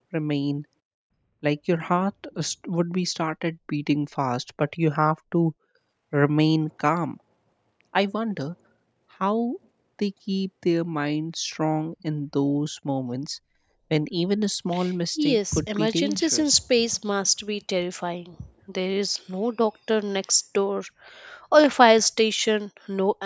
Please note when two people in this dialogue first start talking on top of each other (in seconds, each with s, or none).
15.2 s